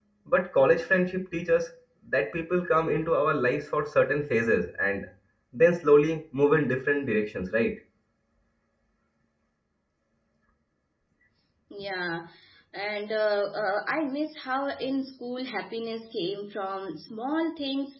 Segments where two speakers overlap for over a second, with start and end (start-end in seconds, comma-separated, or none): none